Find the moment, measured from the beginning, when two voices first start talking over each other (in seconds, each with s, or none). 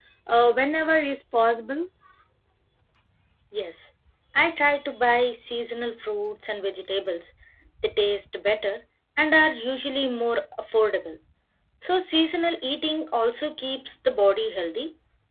none